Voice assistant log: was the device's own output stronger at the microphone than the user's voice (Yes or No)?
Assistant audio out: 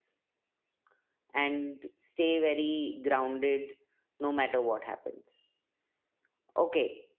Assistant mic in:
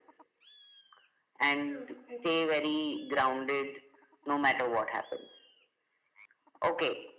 Yes